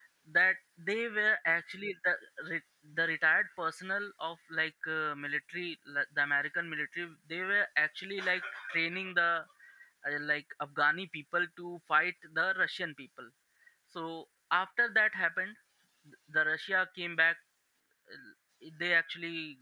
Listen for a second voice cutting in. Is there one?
No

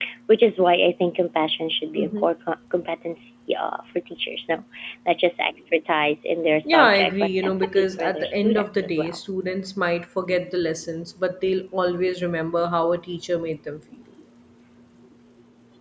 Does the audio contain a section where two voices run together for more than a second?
Yes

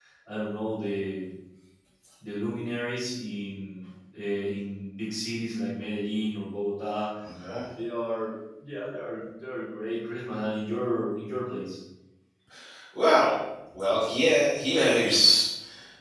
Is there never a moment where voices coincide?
Yes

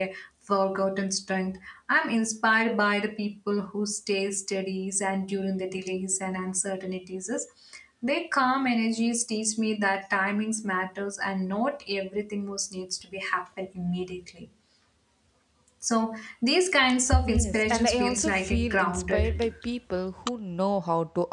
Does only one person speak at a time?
No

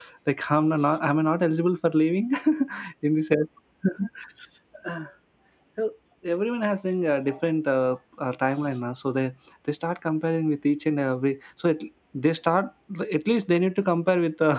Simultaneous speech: No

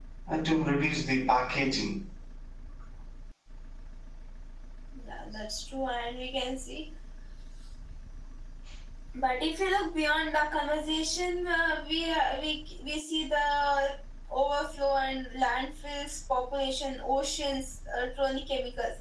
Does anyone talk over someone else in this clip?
No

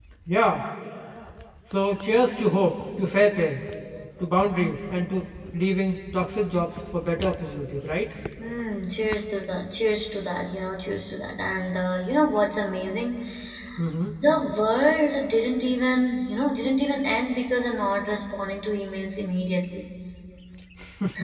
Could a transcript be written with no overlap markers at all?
Yes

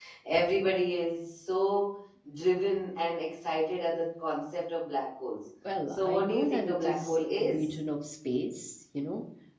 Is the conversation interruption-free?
No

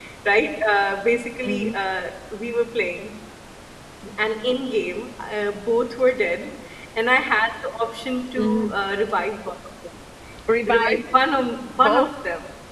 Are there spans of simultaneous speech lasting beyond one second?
No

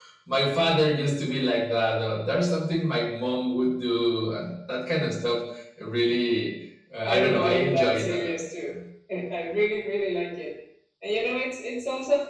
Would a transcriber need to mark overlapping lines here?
Yes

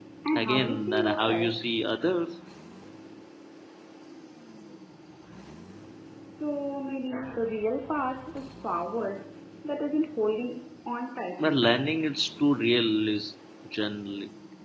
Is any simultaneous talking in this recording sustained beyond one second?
Yes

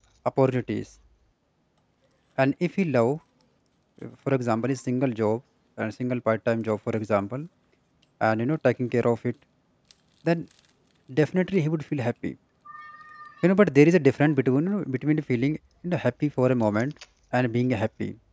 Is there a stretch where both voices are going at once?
No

